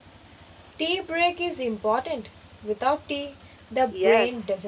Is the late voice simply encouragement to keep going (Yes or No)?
No